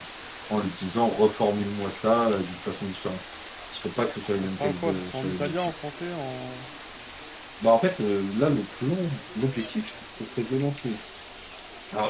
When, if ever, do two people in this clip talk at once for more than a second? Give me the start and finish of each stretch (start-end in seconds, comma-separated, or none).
4.4-5.7